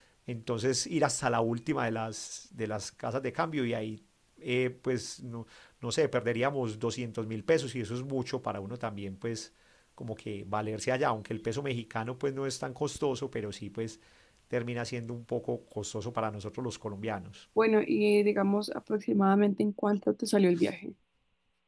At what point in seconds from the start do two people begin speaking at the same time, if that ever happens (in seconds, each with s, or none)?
none